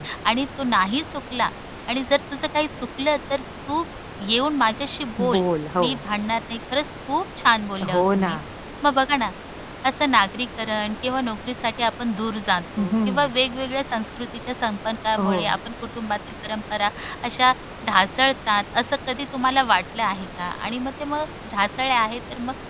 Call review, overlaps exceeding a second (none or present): none